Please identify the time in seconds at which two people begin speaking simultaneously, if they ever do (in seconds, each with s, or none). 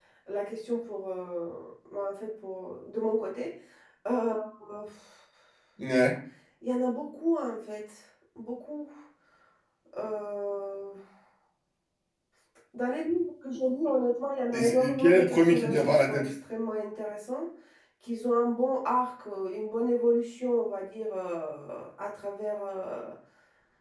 14.5 s